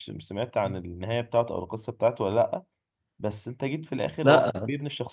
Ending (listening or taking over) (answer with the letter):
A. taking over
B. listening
B